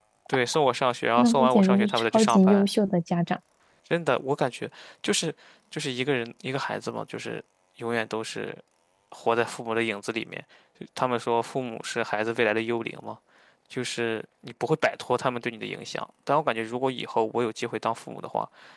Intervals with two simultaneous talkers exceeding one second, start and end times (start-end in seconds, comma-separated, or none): 1.2-2.6